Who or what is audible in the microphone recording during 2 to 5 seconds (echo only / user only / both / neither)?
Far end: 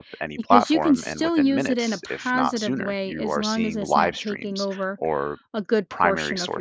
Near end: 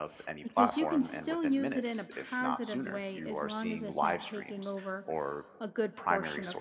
echo only